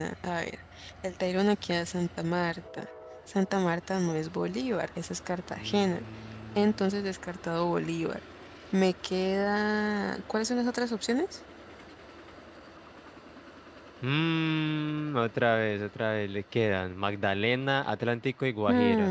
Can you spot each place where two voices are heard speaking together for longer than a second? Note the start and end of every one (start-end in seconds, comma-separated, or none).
none